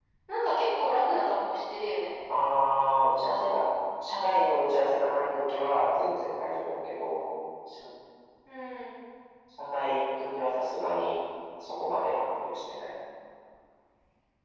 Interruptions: none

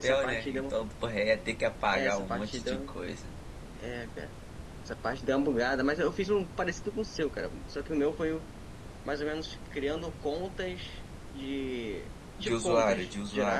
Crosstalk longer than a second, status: present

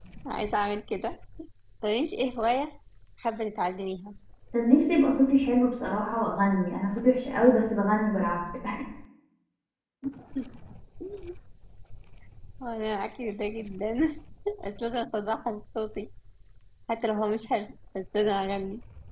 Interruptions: none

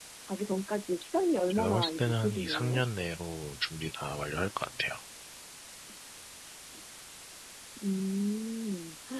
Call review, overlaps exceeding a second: present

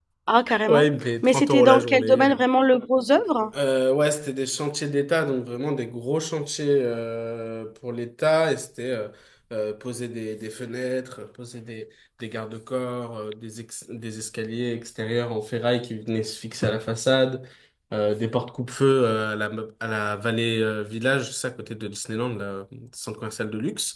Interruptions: present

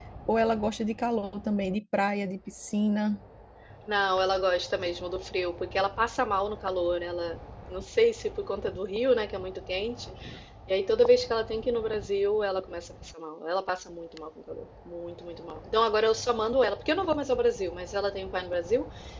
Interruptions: none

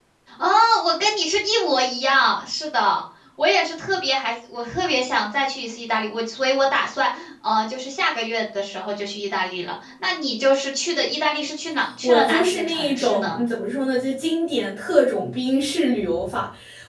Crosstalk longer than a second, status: present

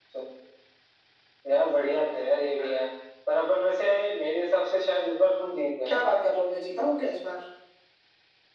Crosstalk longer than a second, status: none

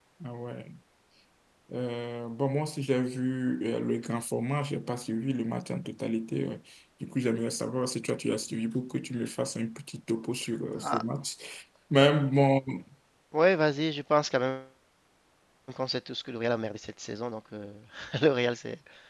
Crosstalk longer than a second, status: none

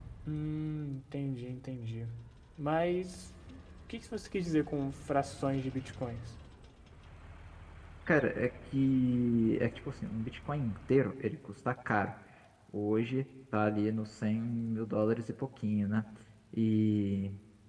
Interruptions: none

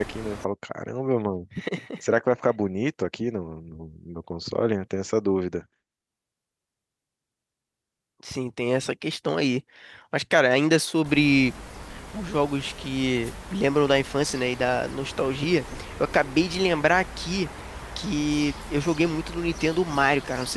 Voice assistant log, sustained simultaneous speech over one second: none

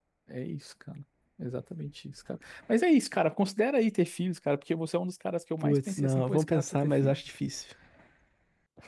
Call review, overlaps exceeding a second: present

